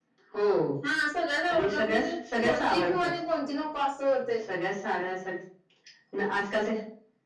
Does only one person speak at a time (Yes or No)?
No